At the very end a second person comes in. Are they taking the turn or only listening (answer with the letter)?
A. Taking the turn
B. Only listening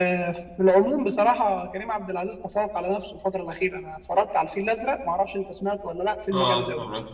A